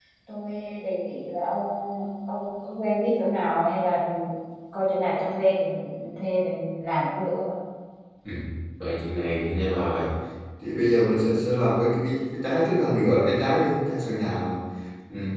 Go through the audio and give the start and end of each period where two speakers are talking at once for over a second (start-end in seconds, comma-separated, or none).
none